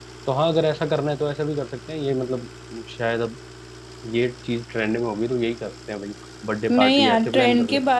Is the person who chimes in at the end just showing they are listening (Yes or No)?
No